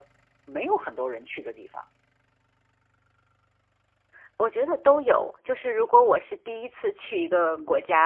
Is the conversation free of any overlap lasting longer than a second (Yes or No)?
Yes